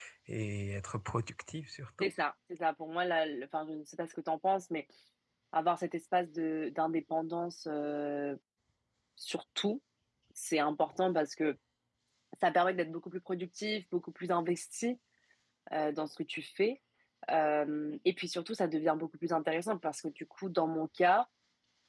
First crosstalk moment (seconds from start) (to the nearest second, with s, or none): none